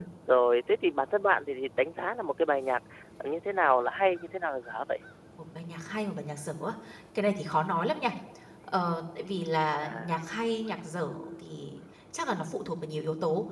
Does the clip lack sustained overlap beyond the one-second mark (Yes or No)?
Yes